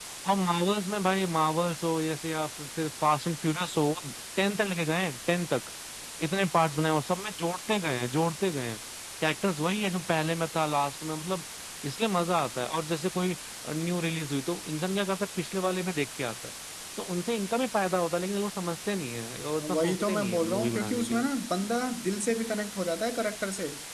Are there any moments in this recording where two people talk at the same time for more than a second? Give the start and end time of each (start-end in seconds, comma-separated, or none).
19.6-21.3